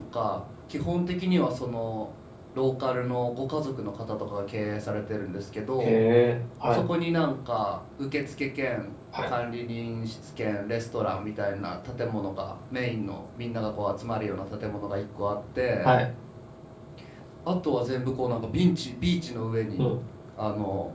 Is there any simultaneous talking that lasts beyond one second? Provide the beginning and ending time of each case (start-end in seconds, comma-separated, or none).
none